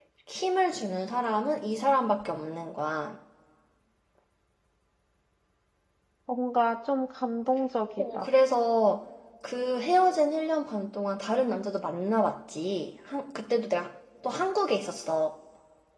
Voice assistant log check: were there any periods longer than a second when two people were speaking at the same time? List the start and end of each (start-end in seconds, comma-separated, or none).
none